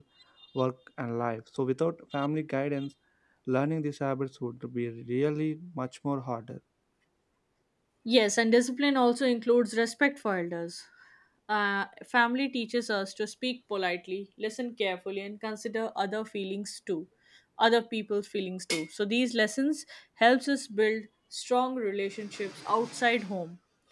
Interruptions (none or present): none